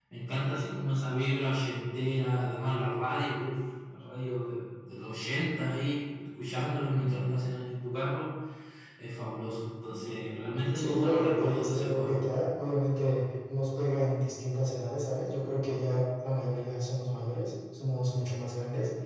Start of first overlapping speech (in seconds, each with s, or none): 10.7 s